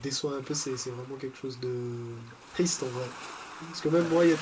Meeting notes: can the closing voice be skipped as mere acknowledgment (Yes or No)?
Yes